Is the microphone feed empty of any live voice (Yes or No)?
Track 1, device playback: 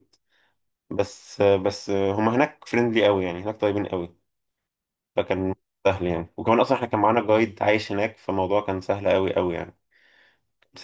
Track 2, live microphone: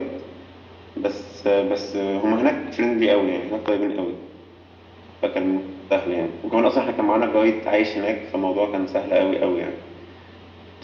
Yes